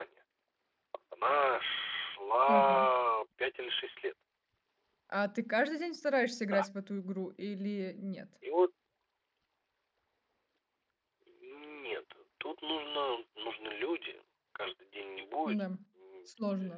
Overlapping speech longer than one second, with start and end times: none

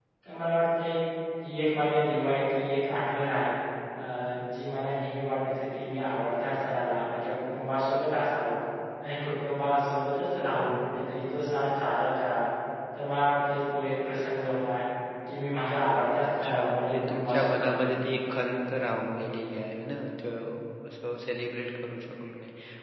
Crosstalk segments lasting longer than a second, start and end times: 16.4-18.0

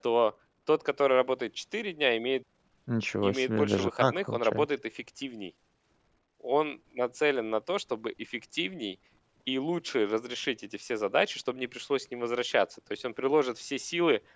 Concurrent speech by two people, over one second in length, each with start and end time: 3.2-4.7

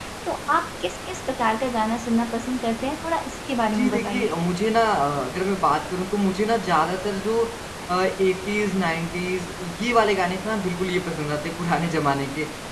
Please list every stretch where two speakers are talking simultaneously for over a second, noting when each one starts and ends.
none

